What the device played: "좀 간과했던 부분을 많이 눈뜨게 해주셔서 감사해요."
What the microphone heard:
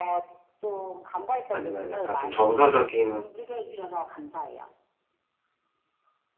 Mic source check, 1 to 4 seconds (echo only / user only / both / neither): both